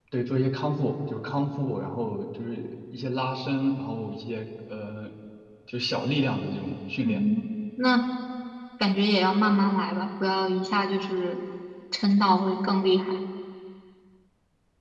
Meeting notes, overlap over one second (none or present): none